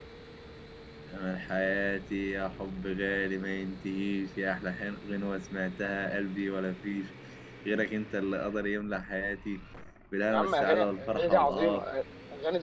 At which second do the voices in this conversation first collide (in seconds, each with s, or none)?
10.3 s